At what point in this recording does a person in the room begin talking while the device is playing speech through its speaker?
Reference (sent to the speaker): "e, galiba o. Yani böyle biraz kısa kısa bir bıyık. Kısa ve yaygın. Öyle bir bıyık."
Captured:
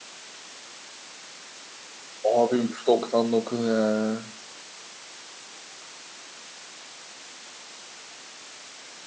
2 s

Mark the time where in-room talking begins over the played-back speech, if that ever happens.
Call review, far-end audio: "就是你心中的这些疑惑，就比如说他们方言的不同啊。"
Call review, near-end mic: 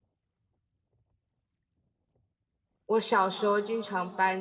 3 s

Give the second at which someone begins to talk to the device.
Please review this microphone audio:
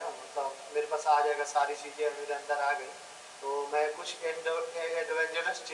none

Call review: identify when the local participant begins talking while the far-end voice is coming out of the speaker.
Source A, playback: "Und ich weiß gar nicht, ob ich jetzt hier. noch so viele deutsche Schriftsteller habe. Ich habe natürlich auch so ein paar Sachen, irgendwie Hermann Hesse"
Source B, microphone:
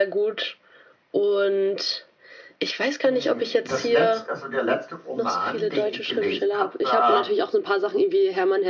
3 s

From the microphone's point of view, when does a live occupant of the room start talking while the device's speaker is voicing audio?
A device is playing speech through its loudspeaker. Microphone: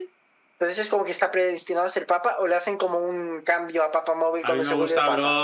4 s

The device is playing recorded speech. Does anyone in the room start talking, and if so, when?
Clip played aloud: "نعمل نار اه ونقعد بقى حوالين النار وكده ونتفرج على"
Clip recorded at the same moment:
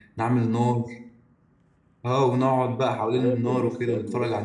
3 s

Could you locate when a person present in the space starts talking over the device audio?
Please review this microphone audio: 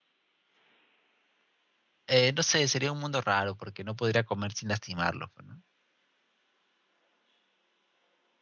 2 s

